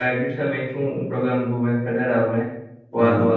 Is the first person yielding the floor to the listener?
No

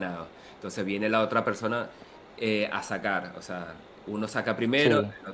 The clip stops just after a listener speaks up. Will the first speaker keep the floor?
Yes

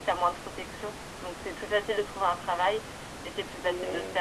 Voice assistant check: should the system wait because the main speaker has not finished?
Yes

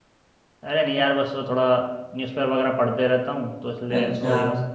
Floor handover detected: No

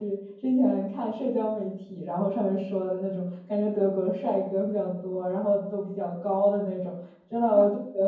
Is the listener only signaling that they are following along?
Yes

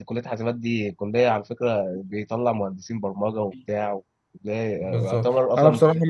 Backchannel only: No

